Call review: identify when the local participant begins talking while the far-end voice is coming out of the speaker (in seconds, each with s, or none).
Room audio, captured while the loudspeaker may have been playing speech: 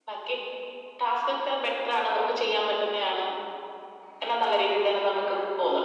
none